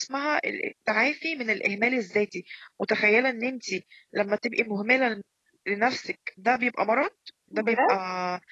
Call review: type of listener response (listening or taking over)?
listening